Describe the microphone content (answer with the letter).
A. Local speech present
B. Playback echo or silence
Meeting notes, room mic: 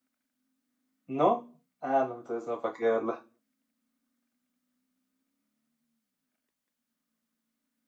A